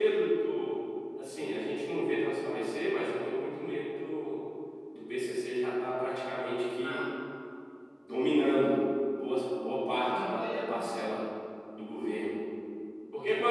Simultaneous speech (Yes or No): Yes